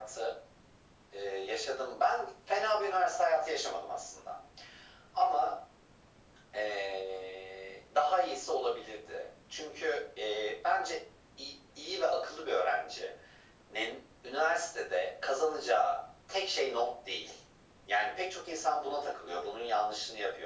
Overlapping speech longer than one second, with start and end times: none

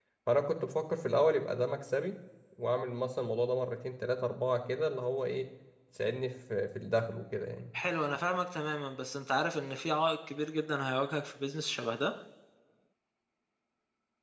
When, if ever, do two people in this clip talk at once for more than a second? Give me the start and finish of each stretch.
none

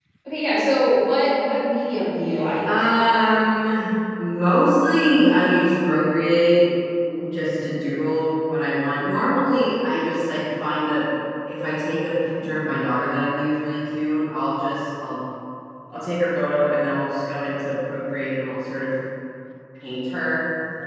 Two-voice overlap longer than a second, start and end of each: none

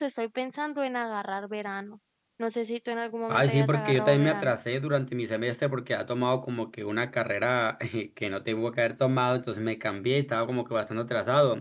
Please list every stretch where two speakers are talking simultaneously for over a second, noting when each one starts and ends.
3.3-4.6

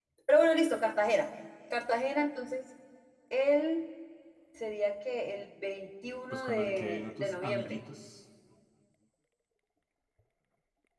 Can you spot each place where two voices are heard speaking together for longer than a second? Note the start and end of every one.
6.3-7.8

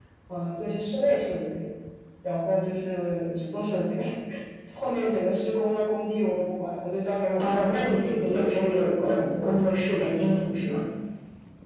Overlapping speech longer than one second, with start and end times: 7.4-9.1

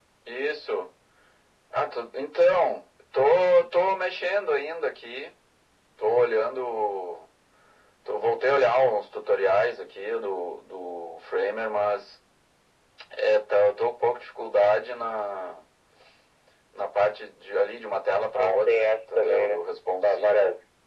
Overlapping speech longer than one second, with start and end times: 18.3-19.6

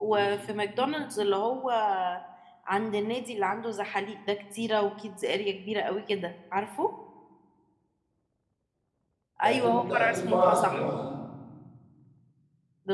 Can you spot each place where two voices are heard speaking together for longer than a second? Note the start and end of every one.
9.4-10.9

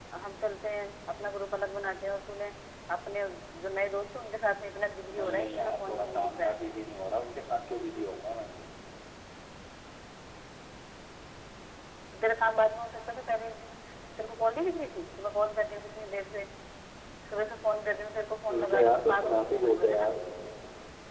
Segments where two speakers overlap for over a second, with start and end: 5.2-6.6, 18.5-20.1

